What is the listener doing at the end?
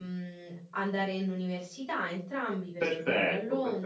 taking over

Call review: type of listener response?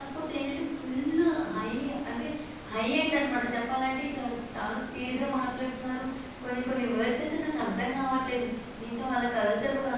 listening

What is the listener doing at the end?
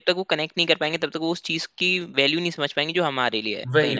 taking over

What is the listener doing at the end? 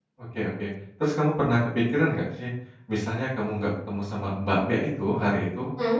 listening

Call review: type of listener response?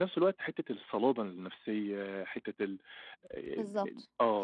taking over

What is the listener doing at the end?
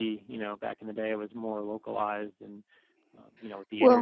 listening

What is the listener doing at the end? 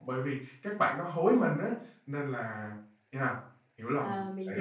taking over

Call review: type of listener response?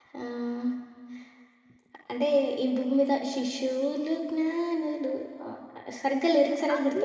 taking over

